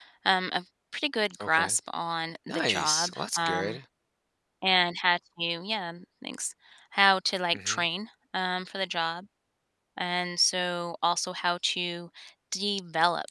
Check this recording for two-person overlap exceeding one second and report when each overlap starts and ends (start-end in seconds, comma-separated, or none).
2.5-3.8